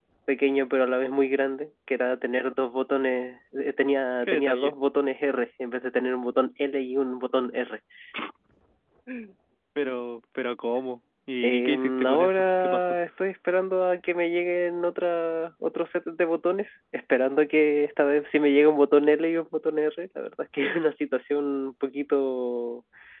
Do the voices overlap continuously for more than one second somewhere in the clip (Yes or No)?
Yes